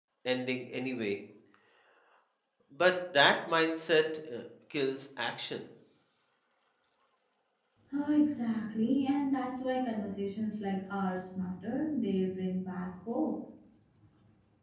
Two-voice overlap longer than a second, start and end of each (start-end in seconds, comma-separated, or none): none